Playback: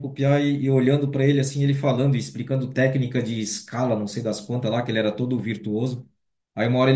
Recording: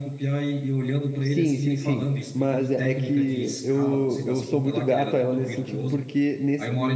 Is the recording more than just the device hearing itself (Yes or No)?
Yes